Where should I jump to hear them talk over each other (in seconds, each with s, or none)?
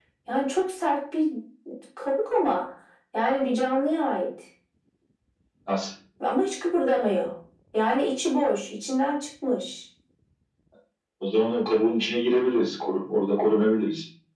none